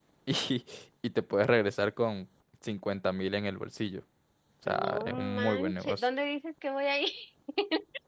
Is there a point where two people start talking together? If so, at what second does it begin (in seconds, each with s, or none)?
4.7 s